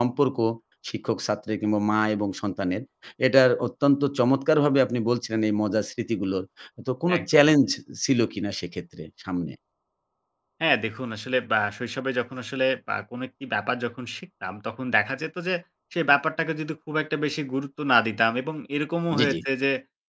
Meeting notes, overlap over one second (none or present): none